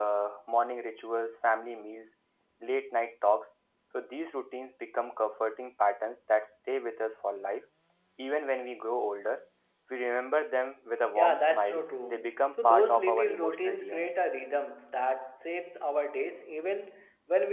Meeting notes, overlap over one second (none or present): present